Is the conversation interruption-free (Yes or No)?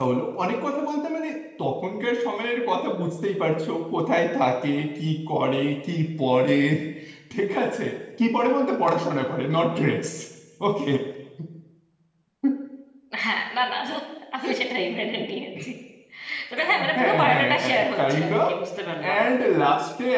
No